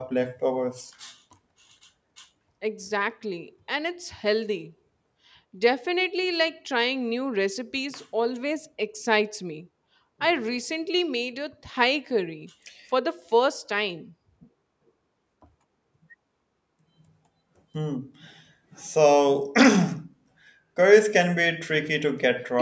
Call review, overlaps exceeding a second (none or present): none